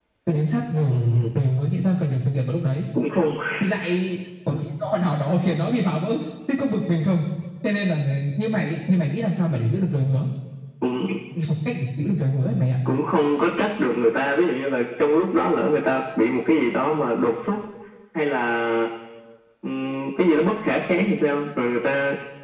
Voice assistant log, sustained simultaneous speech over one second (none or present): none